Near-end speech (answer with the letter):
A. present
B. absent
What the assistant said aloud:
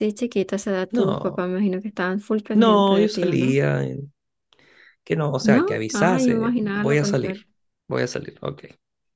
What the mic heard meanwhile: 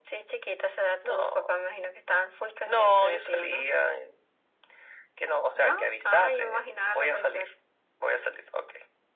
B